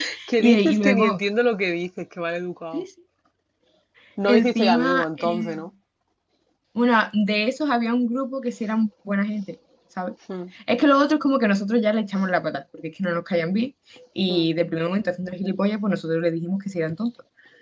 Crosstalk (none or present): present